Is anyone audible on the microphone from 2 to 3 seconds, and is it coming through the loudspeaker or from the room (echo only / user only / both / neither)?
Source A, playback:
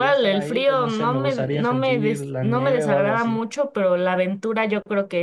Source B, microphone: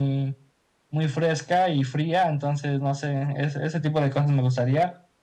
user only